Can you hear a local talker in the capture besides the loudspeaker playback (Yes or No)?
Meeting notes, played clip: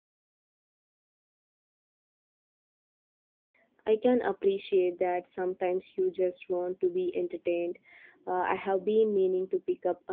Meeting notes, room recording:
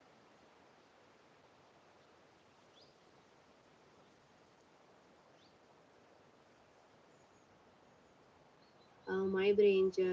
Yes